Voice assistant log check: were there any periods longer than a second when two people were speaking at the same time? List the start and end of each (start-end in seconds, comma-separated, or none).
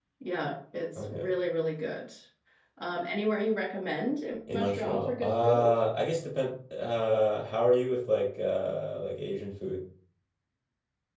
4.5-5.8